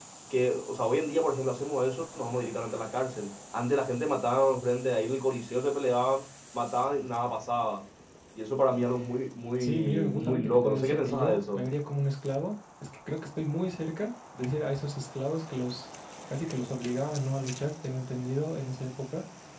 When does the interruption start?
10 s

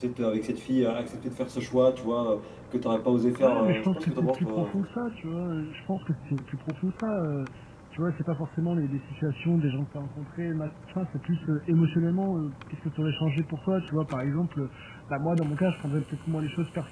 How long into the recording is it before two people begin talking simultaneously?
3 s

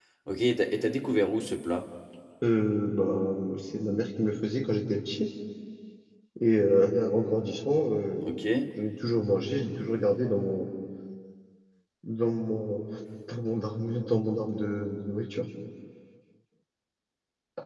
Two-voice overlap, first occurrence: none

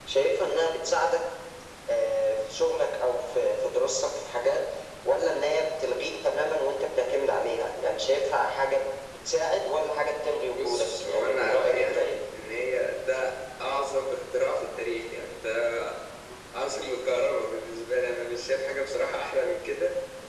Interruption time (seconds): 11 s

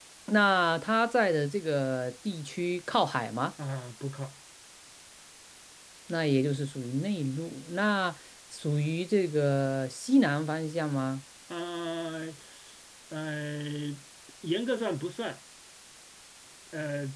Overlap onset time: none

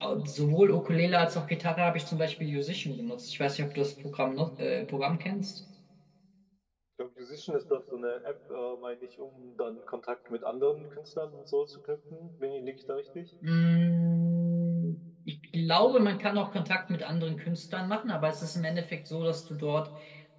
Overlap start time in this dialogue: none

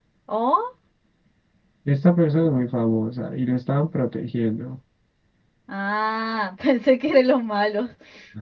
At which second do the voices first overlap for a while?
none

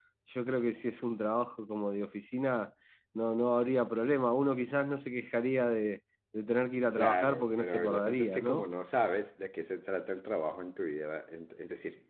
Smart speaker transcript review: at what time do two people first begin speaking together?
7 s

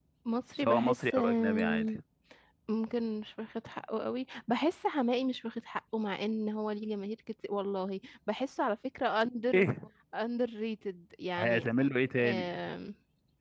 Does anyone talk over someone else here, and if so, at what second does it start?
1 s

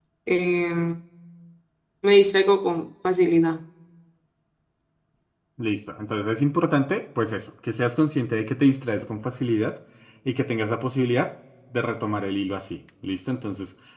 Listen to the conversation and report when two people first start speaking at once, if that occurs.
none

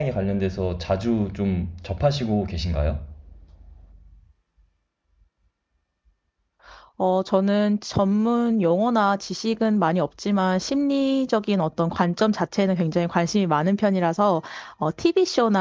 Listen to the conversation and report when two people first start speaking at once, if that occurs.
none

